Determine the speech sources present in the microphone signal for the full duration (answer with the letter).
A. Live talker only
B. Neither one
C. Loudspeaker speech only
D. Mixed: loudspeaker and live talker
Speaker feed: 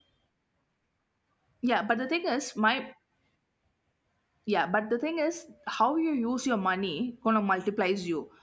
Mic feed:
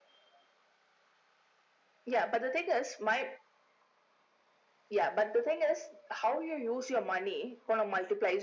C